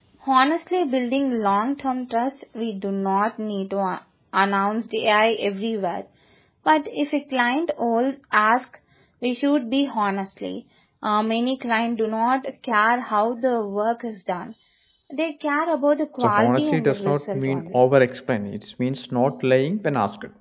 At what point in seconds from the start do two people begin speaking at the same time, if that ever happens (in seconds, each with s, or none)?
16.2 s